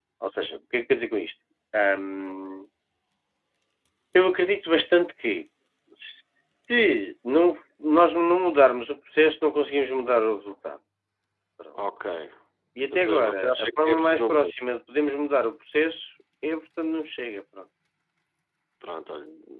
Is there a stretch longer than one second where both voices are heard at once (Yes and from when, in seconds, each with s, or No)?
Yes, from 12.9 s